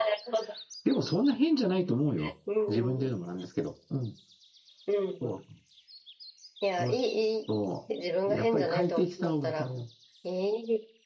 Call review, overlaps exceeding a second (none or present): present